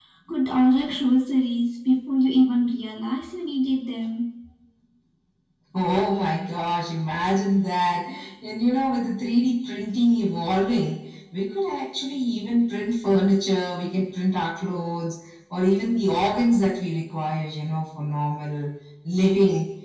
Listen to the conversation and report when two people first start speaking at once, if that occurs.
none

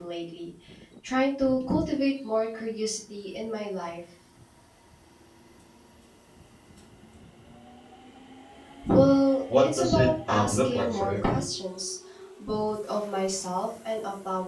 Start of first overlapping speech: 9.6 s

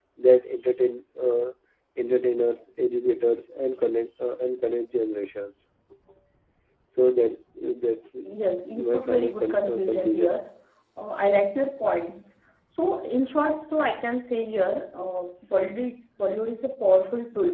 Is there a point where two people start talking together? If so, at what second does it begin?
8.7 s

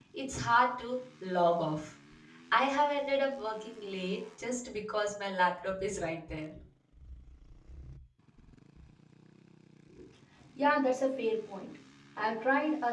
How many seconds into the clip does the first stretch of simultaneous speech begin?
none

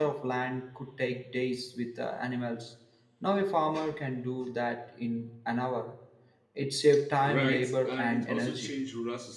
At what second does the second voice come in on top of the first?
7.2 s

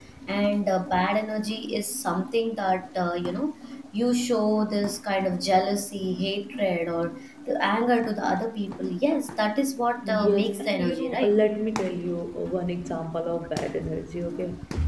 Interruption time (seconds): 10.0 s

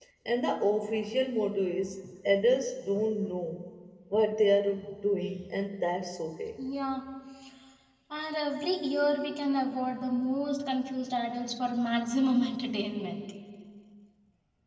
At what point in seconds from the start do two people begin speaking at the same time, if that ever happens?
none

